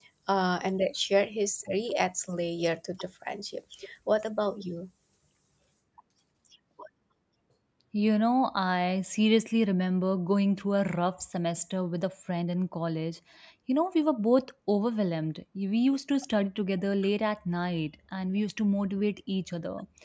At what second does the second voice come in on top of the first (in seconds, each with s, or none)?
none